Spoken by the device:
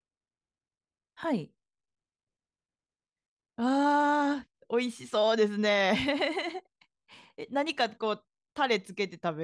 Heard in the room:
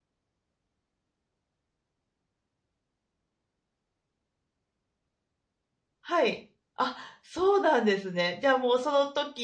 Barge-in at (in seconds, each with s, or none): 6.0 s